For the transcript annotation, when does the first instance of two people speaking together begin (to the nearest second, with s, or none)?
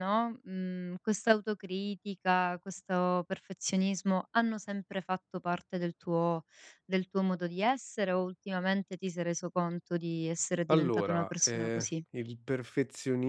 11 s